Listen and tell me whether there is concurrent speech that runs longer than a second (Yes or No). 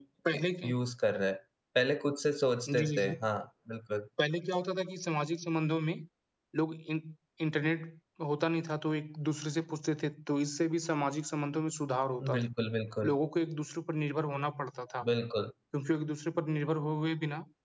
No